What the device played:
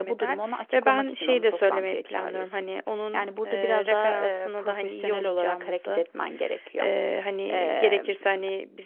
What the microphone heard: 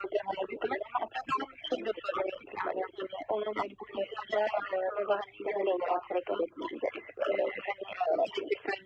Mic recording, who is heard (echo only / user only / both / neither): echo only